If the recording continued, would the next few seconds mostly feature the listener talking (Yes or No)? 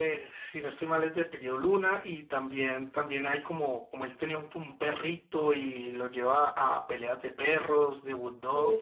Yes